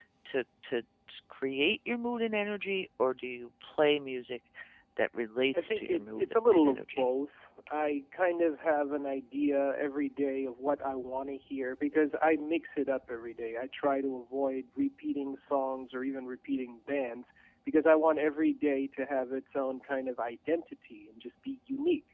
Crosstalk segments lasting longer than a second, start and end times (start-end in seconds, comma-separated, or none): 5.5-7.1